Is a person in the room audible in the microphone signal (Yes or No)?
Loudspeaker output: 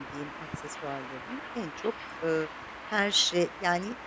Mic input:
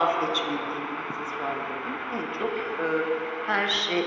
No